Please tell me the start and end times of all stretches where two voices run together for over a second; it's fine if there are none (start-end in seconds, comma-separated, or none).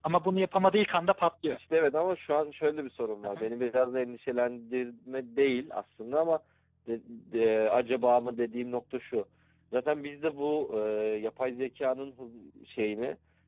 none